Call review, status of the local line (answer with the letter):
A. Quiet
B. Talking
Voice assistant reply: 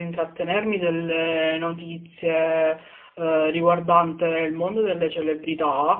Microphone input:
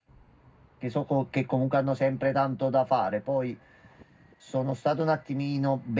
B